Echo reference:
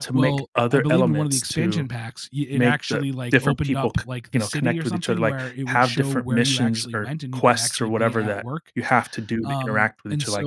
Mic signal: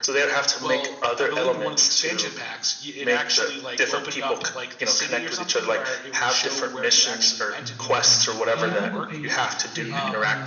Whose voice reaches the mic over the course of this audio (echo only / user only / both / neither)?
both